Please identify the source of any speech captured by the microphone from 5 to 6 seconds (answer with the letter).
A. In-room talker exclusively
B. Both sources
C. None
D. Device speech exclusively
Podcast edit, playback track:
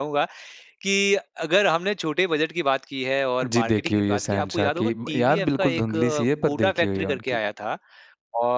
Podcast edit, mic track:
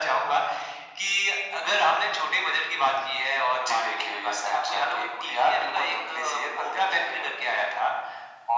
D